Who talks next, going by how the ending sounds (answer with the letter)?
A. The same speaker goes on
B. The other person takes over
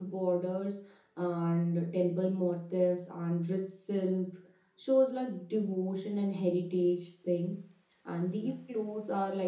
A